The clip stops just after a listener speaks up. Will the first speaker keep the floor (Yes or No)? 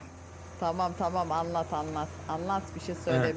No